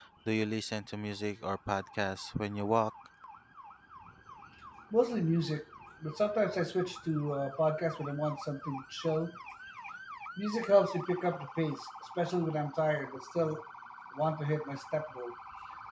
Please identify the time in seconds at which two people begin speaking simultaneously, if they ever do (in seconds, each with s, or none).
none